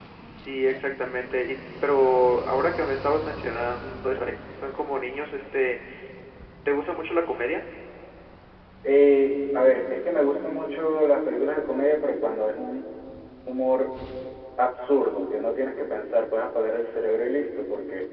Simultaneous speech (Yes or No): No